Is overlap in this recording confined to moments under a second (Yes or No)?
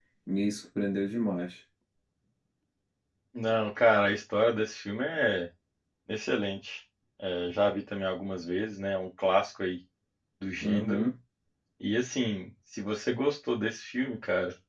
Yes